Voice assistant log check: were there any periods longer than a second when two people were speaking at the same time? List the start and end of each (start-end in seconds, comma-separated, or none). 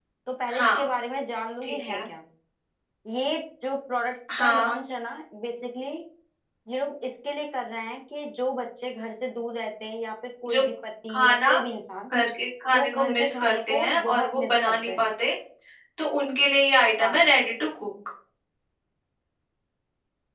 12.7-15.0